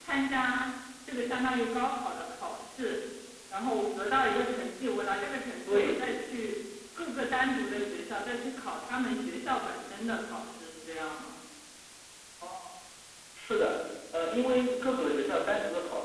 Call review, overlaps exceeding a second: none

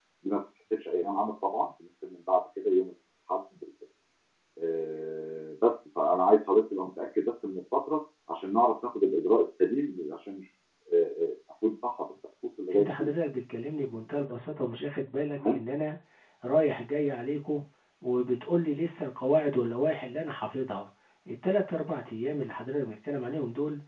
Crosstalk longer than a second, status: none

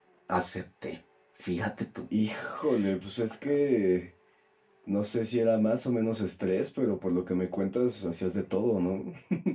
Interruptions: none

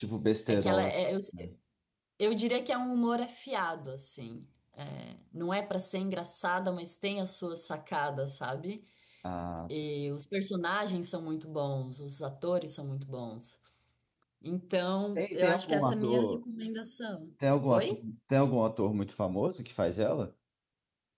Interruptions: present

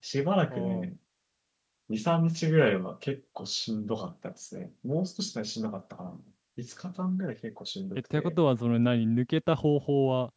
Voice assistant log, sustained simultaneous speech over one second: none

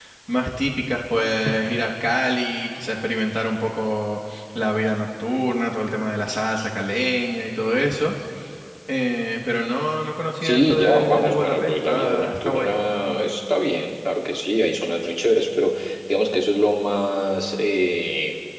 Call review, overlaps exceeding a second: present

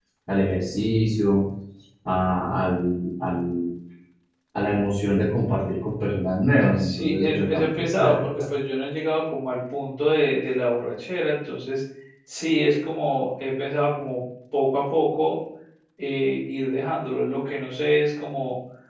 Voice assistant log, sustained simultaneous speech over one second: present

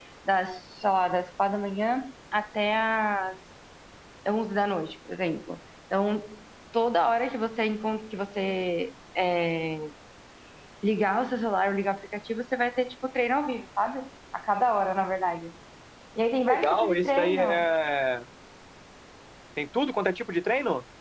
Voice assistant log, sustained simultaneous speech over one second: present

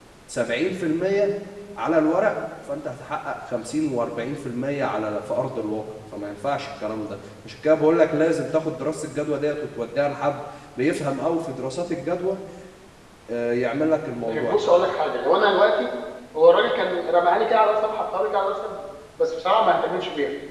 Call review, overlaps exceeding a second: none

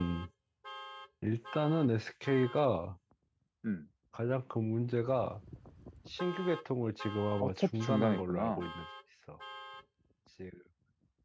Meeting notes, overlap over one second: present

